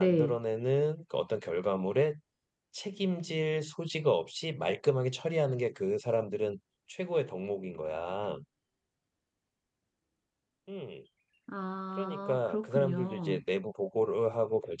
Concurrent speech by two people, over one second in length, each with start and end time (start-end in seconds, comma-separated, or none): 12.0-13.4